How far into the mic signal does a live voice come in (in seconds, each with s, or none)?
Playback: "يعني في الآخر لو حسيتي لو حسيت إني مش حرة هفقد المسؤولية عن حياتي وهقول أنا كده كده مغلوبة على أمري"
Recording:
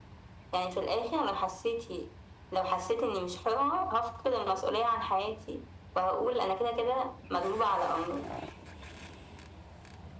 none